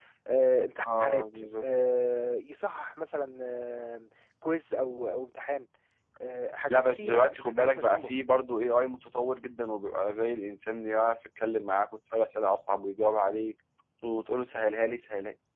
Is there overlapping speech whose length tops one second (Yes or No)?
Yes